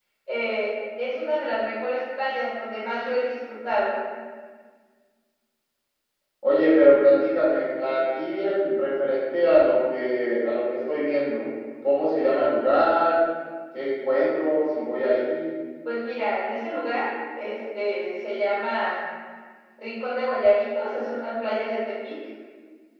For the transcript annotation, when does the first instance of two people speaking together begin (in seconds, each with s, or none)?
none